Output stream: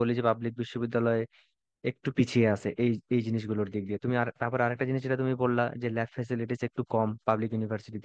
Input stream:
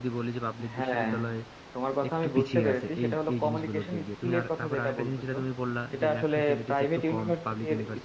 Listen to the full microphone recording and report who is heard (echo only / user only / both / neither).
both